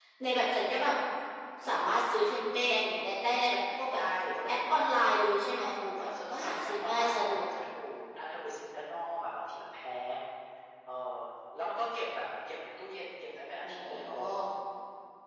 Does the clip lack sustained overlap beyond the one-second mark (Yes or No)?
No